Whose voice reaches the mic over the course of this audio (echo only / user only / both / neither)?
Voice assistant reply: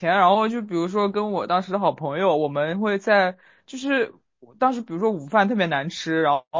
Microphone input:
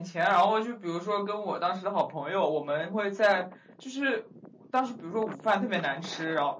echo only